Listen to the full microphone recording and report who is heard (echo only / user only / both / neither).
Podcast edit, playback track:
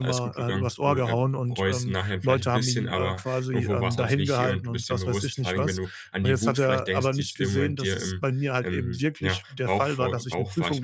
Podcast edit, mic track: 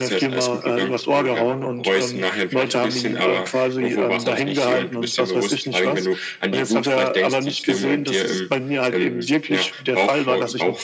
echo only